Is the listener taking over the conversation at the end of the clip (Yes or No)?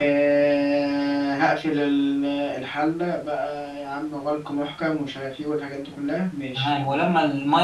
Yes